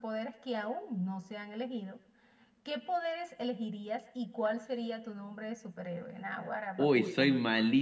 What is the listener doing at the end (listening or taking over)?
taking over